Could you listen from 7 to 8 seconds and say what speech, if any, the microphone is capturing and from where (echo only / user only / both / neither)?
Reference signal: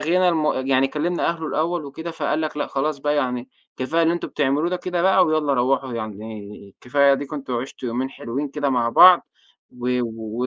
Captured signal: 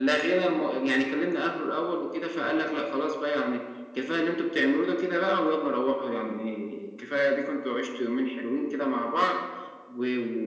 echo only